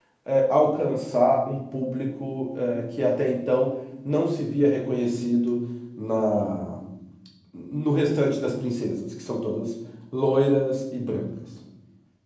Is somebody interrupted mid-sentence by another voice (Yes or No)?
No